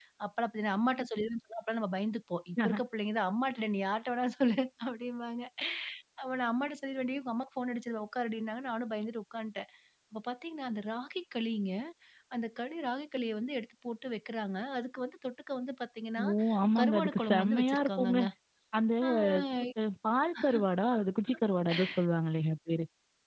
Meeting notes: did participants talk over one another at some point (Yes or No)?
Yes